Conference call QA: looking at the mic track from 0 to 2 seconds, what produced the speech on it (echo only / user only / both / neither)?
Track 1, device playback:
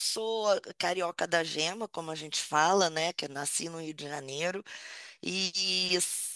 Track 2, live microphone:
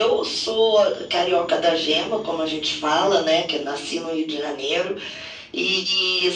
echo only